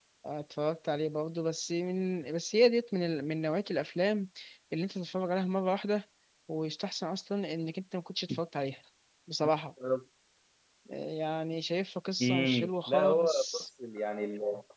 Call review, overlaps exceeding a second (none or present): present